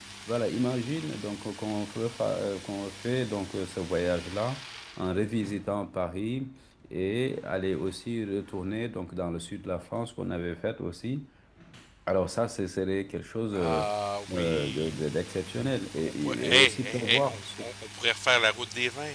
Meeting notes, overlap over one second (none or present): present